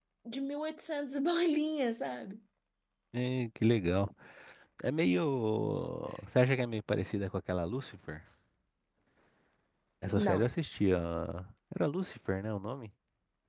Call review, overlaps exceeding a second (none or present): none